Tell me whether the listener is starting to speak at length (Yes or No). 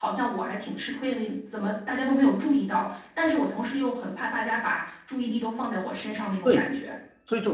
Yes